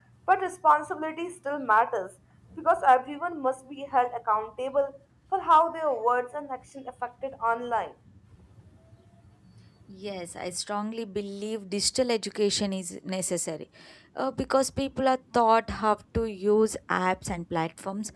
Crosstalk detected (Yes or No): No